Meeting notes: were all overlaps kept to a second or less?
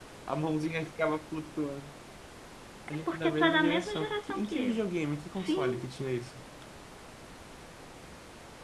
No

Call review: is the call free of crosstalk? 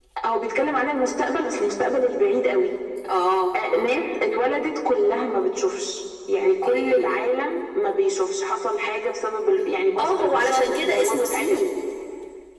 No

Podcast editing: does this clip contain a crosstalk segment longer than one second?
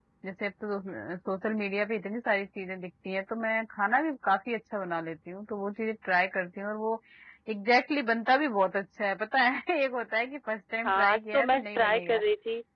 Yes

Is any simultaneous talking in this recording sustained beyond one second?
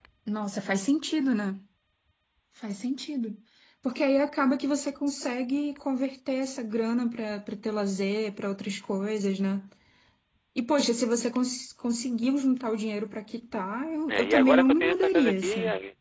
Yes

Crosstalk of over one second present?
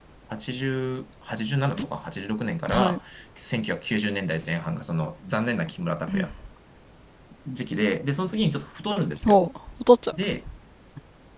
No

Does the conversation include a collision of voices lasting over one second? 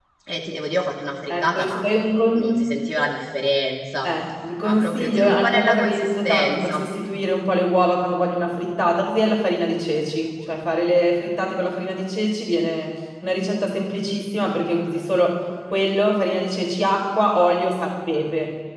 Yes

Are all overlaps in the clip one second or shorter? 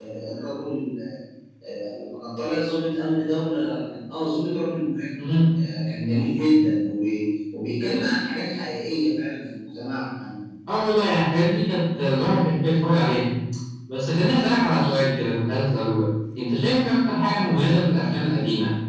Yes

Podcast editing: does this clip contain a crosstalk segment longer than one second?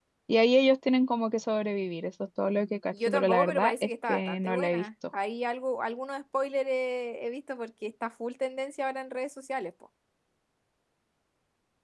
Yes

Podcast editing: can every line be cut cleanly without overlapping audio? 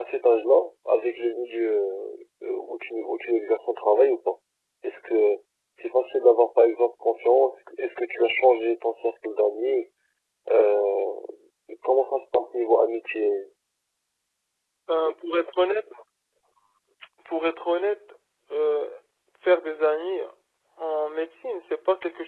Yes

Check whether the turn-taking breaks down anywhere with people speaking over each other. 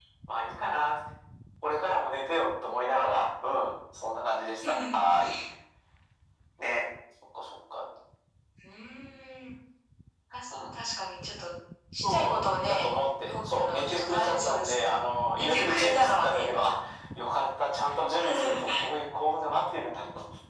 Yes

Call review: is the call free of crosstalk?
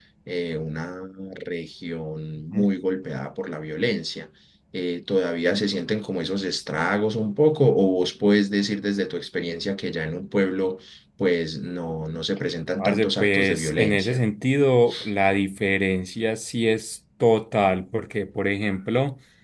No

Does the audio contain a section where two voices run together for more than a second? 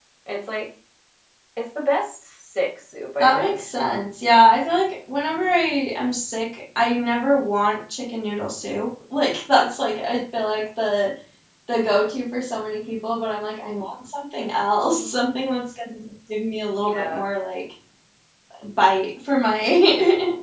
No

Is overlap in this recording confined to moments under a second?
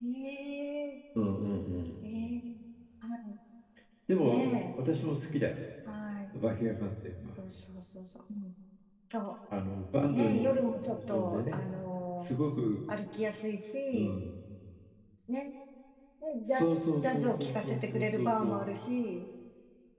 No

